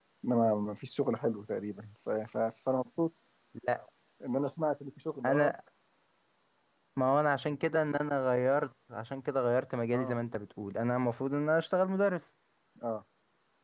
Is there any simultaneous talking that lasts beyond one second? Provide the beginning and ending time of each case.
none

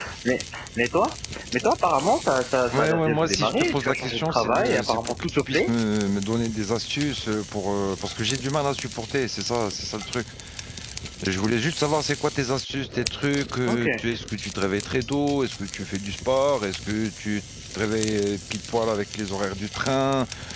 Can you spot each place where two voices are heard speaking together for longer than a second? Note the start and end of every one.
2.7-5.7

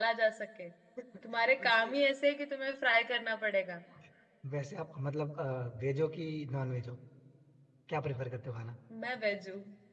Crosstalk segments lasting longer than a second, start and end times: none

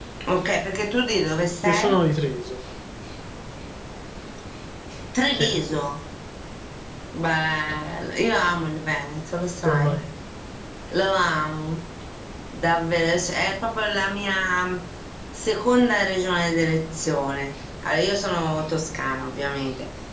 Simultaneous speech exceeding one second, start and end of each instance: none

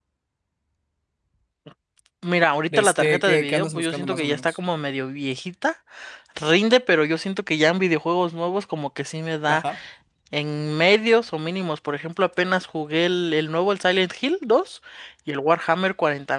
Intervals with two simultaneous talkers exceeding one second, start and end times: 2.7-4.6

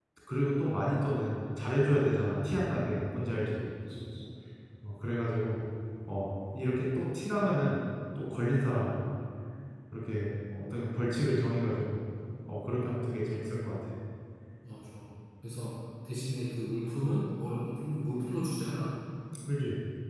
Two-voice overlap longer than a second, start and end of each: none

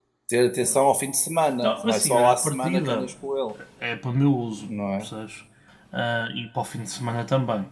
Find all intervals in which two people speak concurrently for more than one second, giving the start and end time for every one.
1.6-3.1

